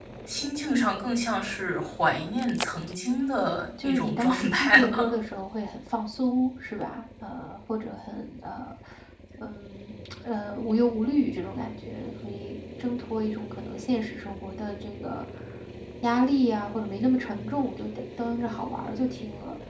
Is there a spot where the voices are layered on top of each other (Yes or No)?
Yes